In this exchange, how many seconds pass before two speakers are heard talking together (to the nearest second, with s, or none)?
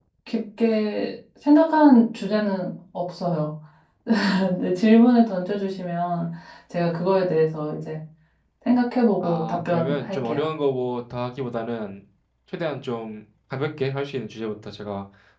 9 s